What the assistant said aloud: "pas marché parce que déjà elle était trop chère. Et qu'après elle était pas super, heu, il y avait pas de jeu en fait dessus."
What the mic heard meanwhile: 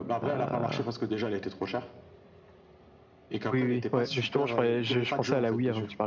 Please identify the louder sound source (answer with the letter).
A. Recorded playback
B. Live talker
B